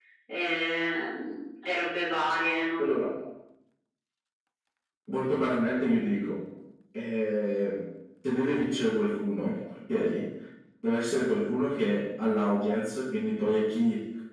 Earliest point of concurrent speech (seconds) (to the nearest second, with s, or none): none